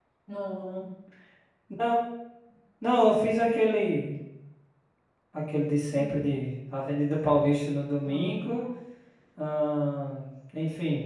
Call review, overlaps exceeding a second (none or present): none